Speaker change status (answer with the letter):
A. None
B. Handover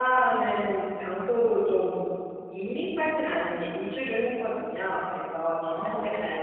A